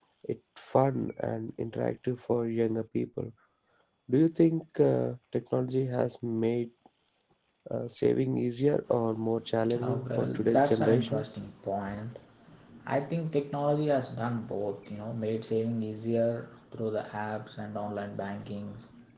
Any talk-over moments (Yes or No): Yes